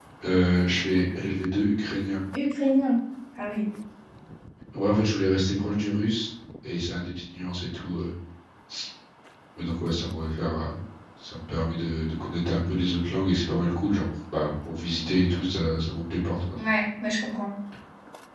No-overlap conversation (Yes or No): Yes